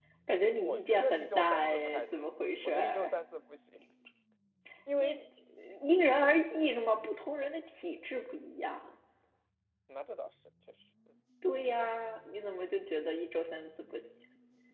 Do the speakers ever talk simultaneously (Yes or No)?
Yes